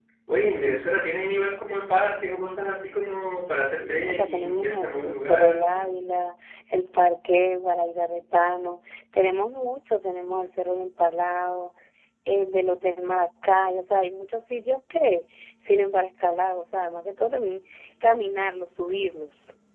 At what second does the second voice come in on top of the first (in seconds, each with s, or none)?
3.8 s